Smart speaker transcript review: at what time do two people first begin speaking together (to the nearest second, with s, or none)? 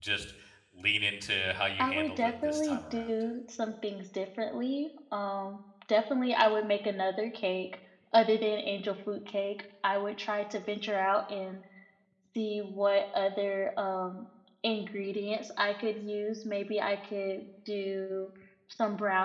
2 s